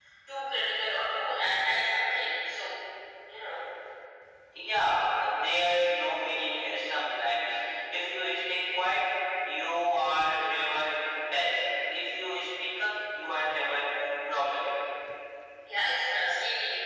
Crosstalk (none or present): none